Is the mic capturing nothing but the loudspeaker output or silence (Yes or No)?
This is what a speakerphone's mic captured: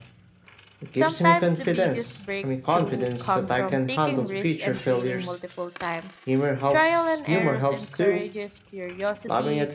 No